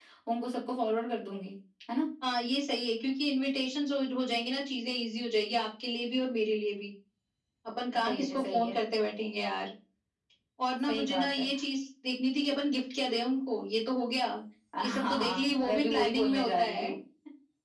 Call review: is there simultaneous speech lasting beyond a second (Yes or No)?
Yes